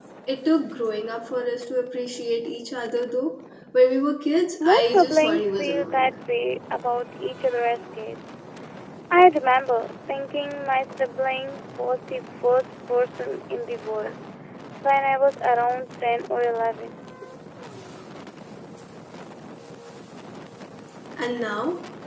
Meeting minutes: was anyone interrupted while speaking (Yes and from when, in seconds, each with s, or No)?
Yes, from 4.6 s